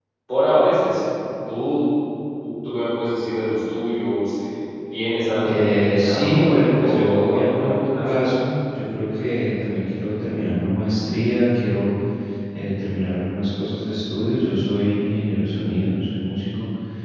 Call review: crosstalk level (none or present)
present